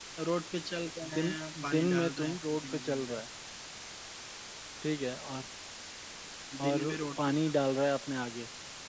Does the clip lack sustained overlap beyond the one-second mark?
No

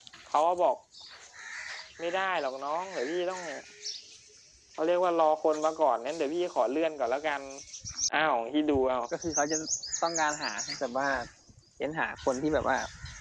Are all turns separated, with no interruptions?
Yes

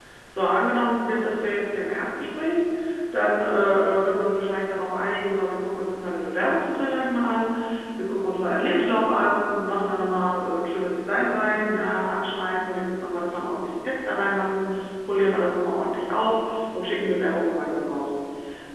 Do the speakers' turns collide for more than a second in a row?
No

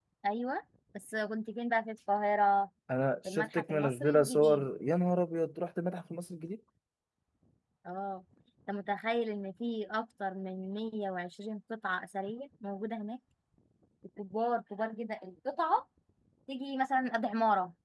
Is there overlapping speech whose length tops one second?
Yes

